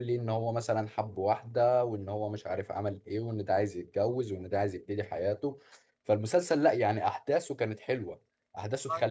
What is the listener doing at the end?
listening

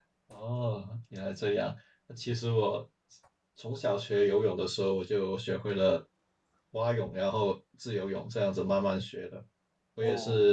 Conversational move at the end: listening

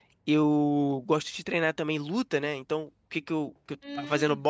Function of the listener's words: listening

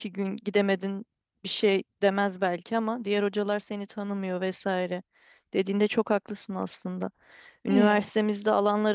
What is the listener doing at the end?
listening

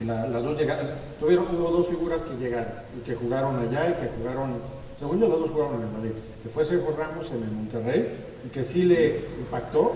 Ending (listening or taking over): listening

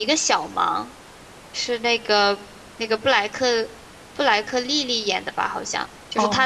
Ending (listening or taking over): listening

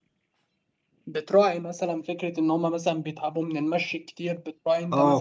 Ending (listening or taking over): taking over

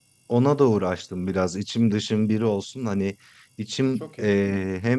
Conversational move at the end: listening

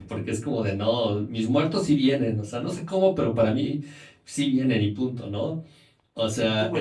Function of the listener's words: taking over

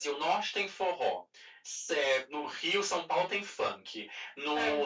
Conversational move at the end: listening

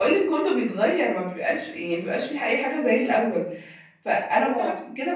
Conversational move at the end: listening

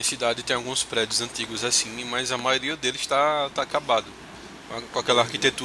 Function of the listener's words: listening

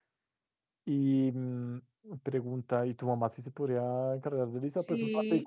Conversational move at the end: taking over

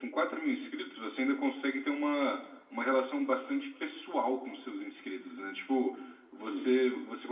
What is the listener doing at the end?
listening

